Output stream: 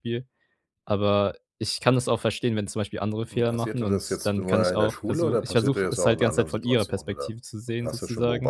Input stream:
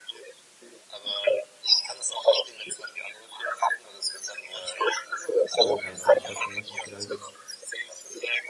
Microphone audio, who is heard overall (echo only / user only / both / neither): both